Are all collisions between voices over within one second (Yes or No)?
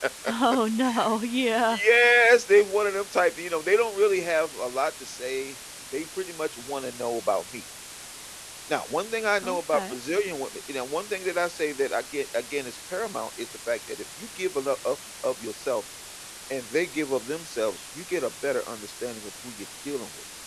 Yes